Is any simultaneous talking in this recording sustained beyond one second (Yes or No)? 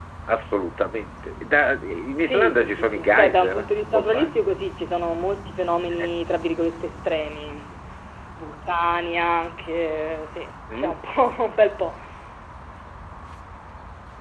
Yes